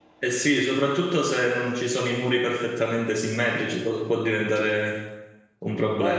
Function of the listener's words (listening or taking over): taking over